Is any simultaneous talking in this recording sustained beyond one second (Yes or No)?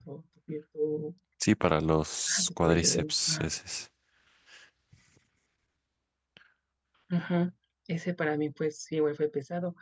Yes